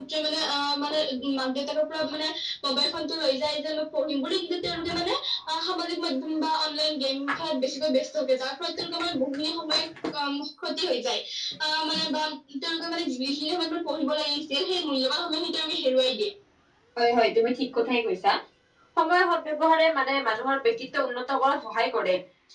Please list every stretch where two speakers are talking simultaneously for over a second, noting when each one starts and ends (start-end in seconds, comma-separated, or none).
none